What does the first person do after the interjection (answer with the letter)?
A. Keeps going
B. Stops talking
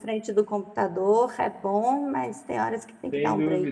B